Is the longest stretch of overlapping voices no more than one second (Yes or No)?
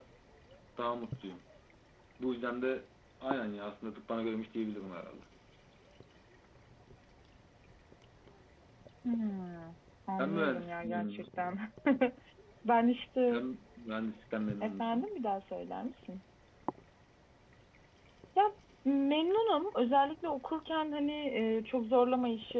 No